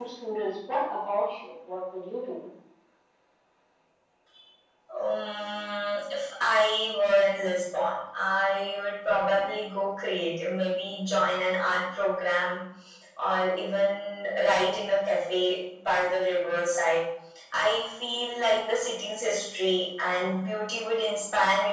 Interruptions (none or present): none